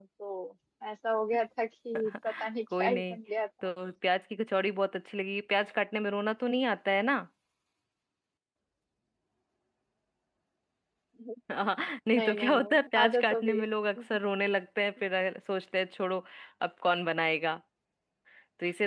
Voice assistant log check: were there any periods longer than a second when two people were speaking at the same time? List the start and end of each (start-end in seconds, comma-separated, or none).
12.1-13.7